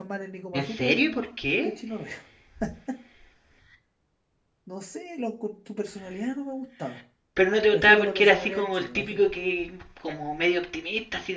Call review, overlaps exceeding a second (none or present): present